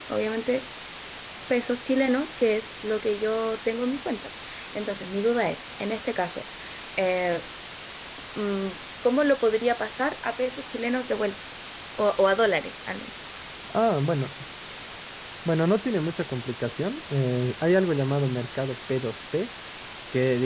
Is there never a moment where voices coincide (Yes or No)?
Yes